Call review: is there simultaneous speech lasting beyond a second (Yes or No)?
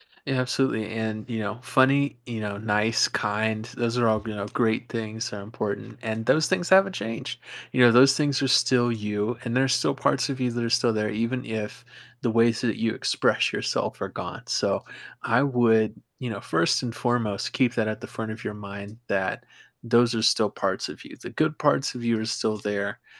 No